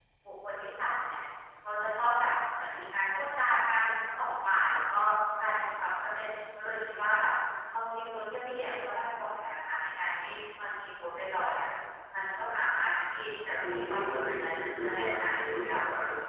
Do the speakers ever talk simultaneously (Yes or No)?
Yes